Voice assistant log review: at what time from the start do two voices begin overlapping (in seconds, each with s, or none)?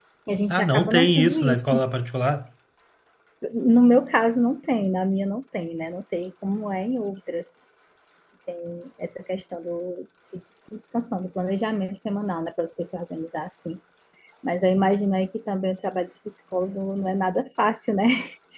0.5 s